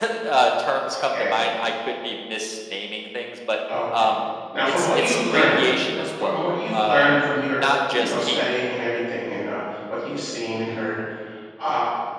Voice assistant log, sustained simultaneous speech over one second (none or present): present